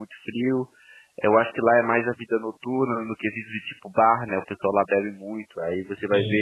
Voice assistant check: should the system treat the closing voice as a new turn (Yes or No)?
No